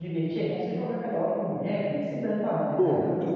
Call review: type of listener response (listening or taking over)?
taking over